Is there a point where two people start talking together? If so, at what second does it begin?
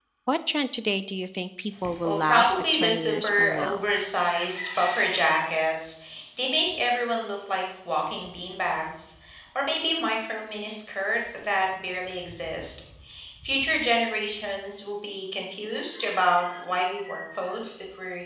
1.8 s

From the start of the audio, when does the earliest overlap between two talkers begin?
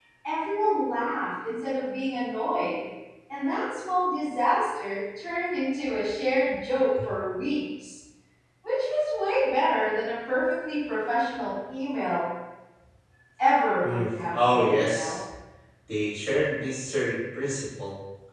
13.8 s

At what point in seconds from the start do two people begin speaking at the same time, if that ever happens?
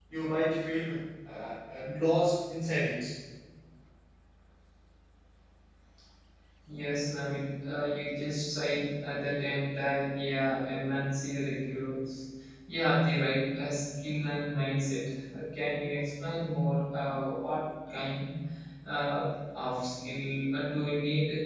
none

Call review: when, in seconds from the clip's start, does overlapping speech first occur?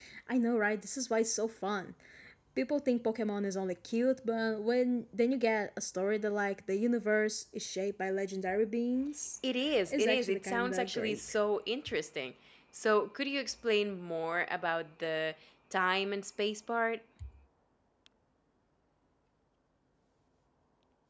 9.9 s

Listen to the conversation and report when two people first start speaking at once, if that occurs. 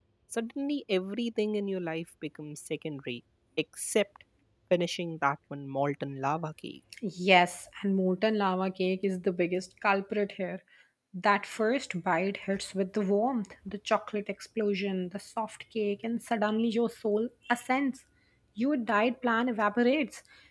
none

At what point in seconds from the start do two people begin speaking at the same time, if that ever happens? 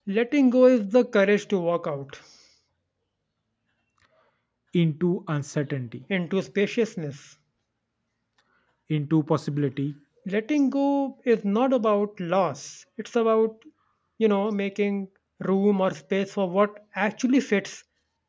none

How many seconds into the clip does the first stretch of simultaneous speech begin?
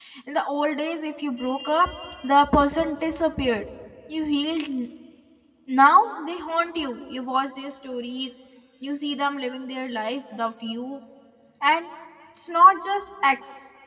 none

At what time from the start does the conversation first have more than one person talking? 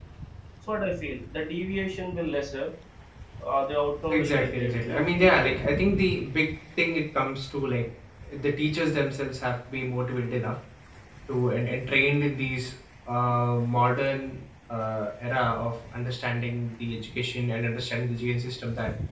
4.1 s

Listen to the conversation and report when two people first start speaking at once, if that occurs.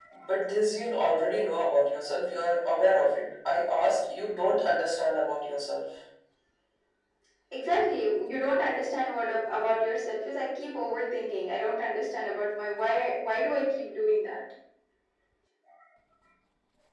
none

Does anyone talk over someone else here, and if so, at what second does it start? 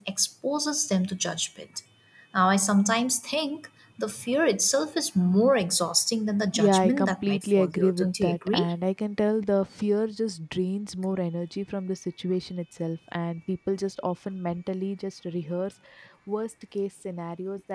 6.5 s

